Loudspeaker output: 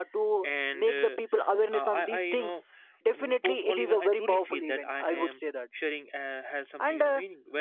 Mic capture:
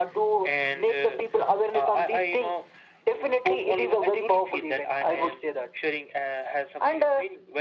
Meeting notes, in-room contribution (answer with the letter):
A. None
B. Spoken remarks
A